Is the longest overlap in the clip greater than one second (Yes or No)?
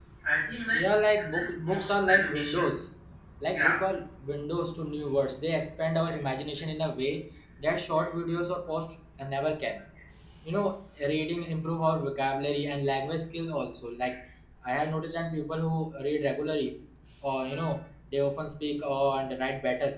Yes